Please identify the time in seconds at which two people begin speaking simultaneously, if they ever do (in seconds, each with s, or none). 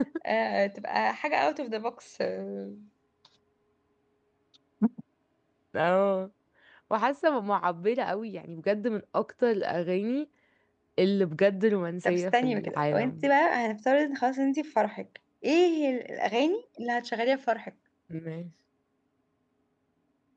12.0 s